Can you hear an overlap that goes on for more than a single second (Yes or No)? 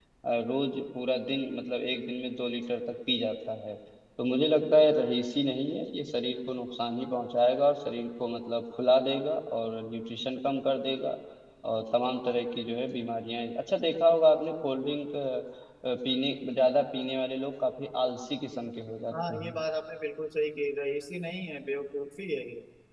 No